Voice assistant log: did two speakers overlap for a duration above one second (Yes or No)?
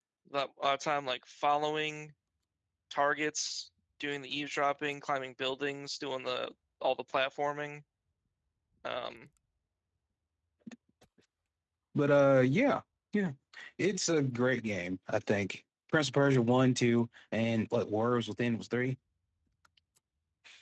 No